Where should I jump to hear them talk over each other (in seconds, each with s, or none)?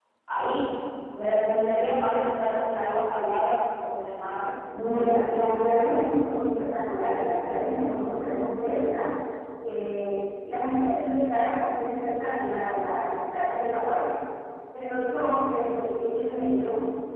none